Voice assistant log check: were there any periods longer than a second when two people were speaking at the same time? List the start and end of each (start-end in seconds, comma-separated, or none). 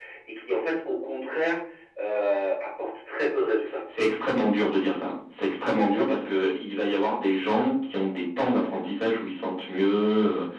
none